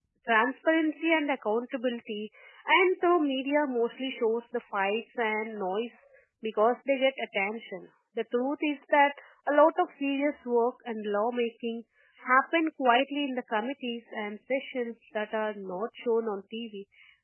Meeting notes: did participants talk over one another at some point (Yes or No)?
No